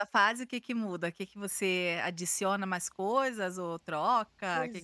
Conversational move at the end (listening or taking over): taking over